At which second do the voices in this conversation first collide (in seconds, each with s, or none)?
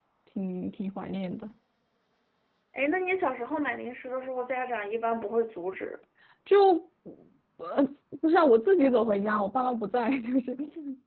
none